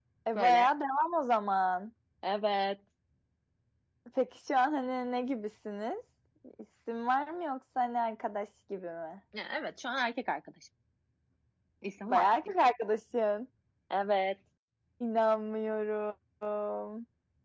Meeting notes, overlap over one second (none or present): none